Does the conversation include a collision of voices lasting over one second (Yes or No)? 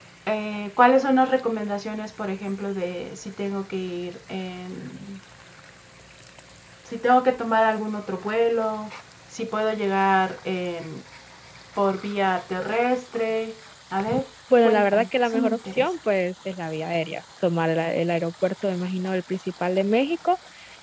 Yes